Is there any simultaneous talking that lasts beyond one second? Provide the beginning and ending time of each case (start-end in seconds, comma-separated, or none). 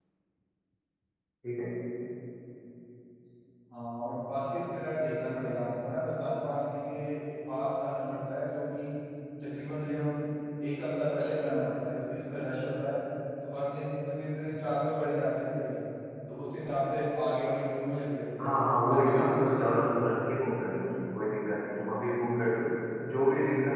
18.4-20.1